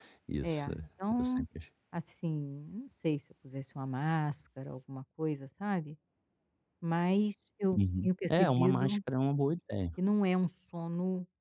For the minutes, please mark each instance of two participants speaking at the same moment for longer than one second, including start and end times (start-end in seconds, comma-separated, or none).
7.8-9.0